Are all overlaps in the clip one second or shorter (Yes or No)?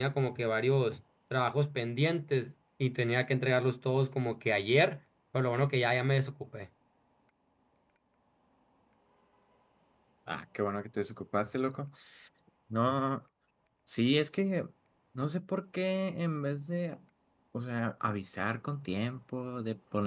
Yes